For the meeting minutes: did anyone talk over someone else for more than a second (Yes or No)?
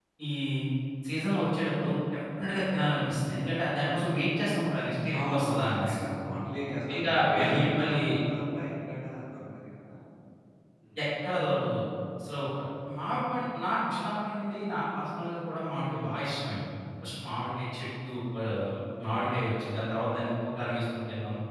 Yes